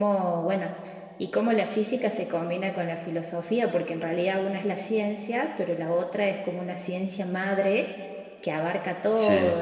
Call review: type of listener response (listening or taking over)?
listening